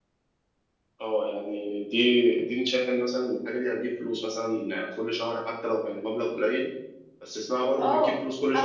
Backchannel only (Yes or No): No